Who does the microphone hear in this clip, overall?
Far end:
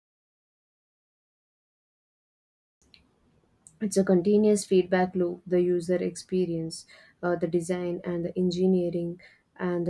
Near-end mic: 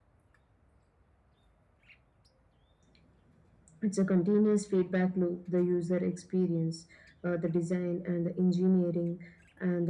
echo only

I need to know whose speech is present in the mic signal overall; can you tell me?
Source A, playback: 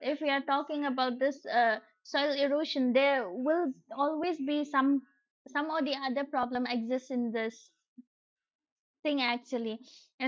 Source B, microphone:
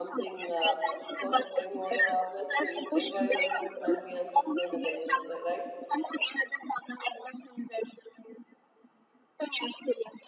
both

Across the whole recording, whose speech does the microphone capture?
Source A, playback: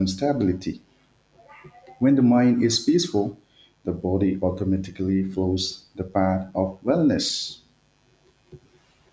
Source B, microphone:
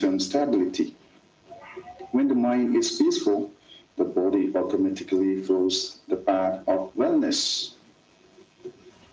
echo only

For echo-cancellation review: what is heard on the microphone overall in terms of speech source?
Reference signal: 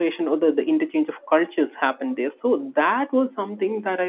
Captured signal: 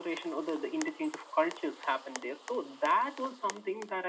echo only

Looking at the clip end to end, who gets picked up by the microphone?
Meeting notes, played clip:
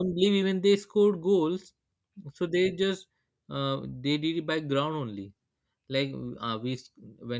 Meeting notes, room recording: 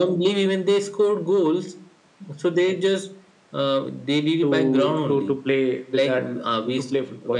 both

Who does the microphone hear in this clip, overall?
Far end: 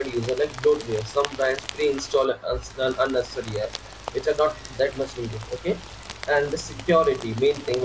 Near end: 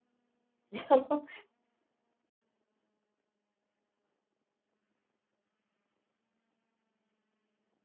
user only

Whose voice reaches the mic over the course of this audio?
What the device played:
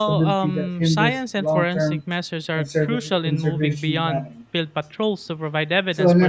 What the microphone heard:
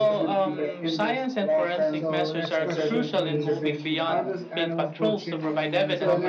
both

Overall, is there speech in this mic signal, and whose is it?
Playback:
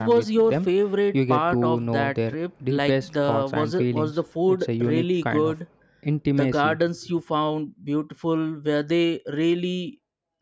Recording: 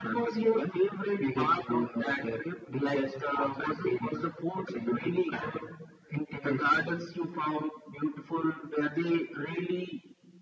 echo only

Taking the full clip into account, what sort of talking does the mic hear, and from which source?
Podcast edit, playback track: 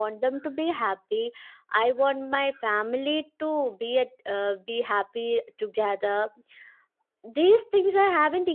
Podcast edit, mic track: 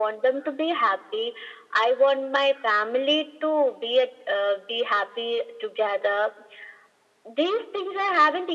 echo only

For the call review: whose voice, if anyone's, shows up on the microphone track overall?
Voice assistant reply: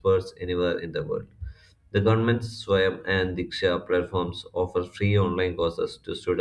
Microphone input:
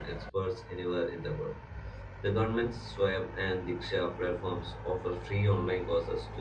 echo only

